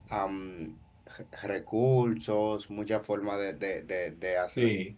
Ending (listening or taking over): listening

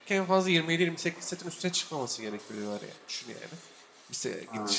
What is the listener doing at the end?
listening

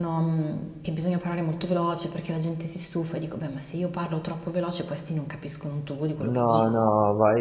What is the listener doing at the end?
taking over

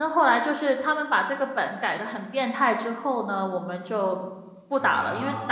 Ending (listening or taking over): listening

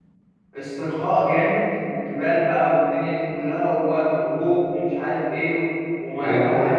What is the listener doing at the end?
taking over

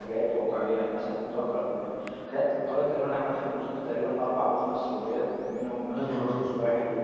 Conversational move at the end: listening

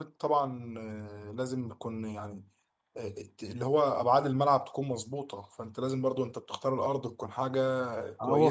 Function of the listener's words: taking over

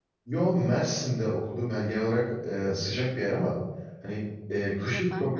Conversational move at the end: listening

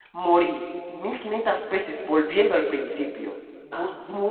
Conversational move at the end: listening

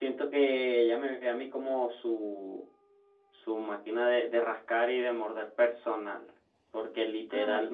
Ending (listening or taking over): listening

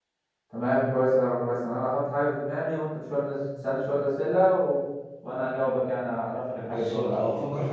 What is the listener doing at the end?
taking over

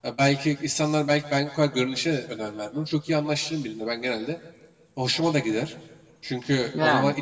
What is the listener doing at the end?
listening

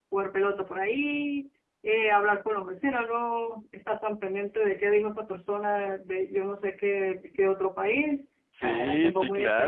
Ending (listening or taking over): taking over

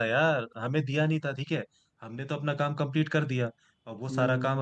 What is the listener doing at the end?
listening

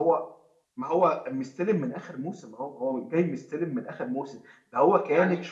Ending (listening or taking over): listening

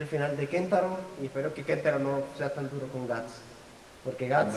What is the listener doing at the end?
taking over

